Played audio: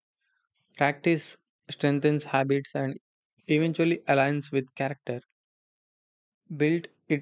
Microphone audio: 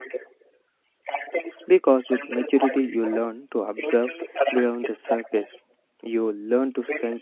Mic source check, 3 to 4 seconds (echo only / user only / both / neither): both